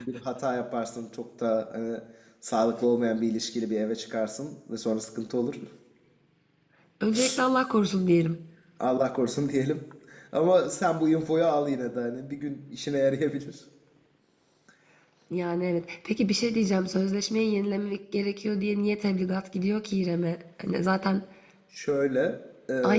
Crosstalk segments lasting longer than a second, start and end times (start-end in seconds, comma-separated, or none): none